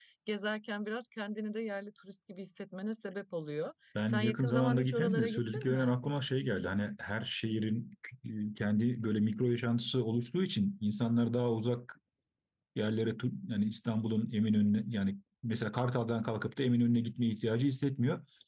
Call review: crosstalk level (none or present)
present